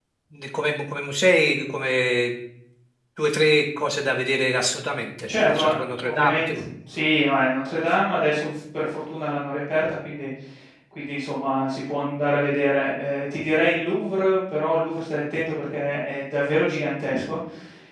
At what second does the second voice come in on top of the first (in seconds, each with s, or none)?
5.3 s